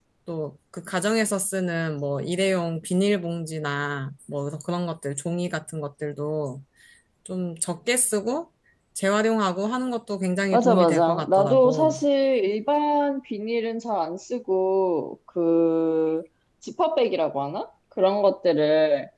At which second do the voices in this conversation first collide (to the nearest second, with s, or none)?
11 s